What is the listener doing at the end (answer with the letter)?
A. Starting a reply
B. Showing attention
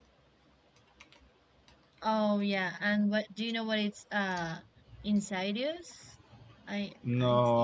A